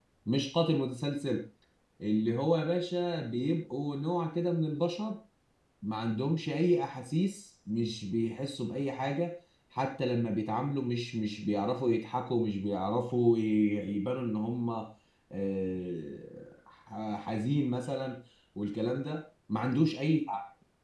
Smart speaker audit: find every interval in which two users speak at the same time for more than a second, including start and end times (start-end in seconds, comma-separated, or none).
none